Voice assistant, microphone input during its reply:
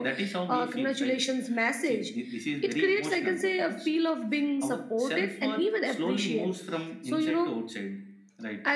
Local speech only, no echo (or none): none